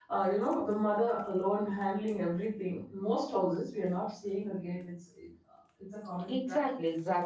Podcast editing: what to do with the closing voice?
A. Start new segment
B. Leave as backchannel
A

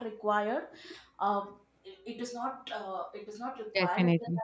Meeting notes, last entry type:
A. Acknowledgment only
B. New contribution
A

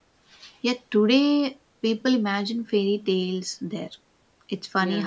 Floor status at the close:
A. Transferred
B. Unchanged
B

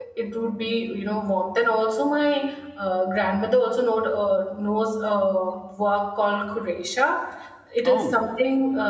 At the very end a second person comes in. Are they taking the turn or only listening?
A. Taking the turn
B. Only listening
B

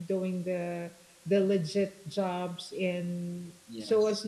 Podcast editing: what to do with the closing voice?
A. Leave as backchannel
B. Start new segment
A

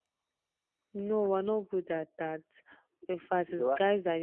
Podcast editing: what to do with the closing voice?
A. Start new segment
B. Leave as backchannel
B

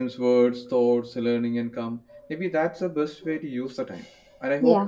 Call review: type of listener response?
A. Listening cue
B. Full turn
A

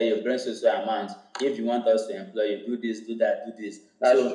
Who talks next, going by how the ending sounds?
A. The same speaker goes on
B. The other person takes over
A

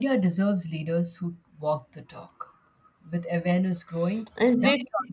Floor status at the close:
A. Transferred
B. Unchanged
B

